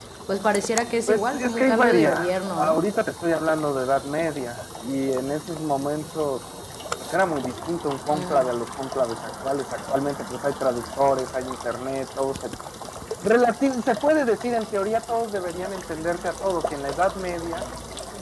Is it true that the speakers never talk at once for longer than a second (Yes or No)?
No